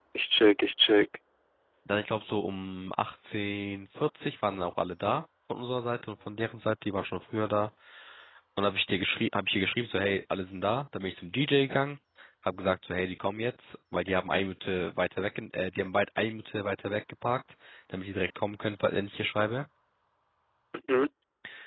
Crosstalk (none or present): none